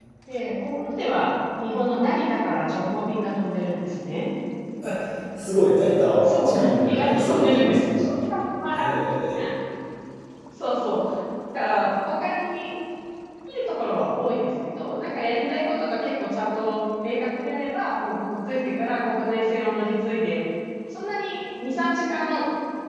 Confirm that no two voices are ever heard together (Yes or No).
No